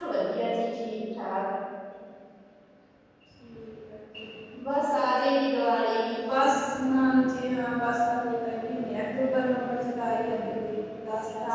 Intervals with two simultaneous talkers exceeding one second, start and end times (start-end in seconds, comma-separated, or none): none